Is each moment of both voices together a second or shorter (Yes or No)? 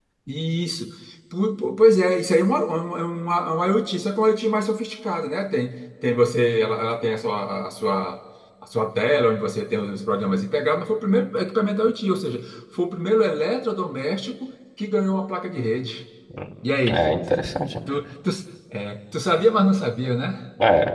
Yes